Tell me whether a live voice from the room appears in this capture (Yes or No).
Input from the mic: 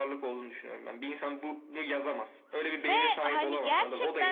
Yes